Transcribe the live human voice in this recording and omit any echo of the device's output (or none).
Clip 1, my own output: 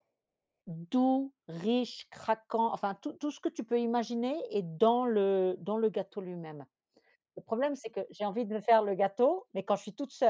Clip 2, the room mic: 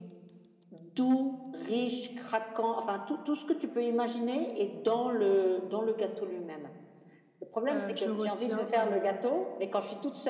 heu, je retiens, heu,